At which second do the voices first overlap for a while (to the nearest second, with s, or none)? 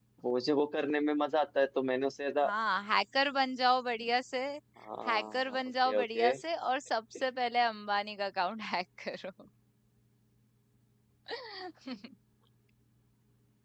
5 s